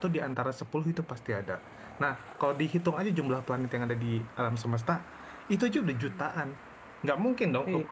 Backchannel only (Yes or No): Yes